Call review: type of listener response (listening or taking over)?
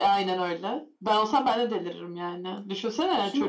taking over